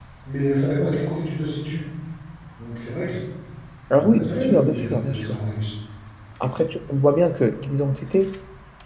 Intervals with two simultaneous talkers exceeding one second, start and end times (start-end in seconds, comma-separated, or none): 4.0-5.4